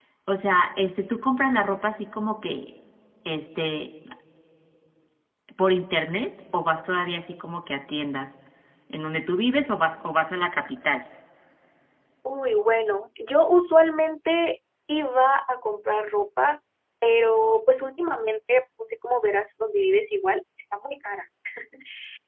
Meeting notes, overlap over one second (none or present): none